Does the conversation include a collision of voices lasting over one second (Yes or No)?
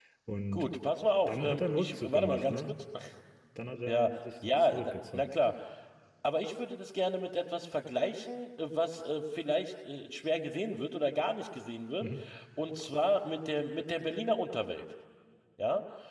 Yes